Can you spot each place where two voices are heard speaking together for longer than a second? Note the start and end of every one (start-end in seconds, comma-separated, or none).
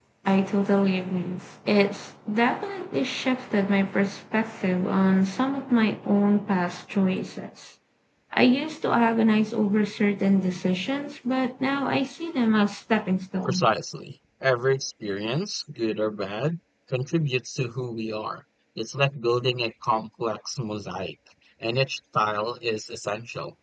none